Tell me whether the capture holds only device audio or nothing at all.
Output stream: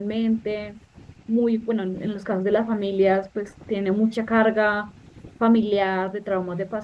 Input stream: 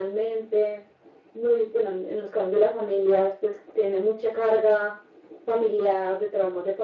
Yes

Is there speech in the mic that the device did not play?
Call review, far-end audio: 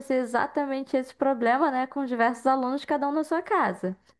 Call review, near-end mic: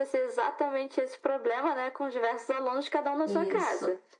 Yes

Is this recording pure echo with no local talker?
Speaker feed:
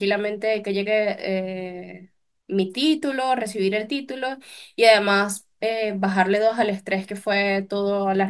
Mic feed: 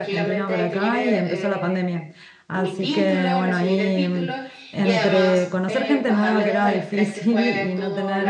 No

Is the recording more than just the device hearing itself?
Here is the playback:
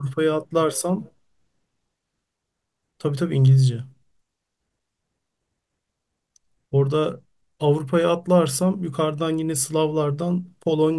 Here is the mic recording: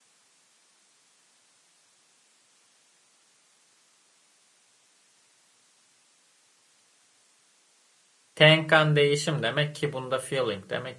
Yes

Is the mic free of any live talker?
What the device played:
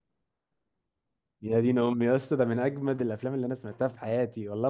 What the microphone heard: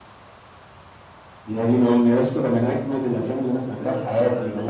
No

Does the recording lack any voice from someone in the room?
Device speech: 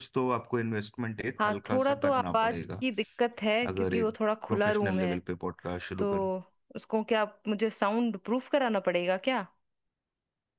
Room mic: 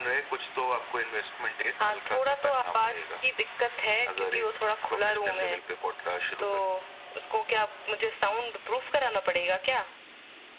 Yes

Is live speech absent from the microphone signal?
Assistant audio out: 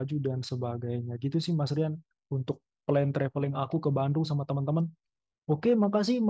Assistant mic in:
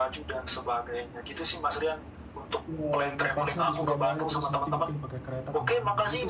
No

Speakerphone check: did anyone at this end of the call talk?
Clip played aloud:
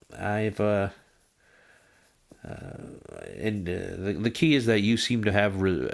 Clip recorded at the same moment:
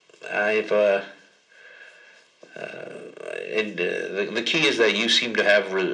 No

